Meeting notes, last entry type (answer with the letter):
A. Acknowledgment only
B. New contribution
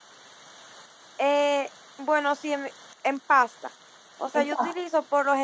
A